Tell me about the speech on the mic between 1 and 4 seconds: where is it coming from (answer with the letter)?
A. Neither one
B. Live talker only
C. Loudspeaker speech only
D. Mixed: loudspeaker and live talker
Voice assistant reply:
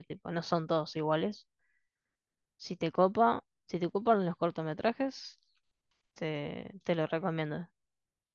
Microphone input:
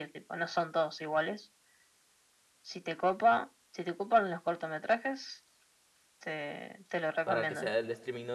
C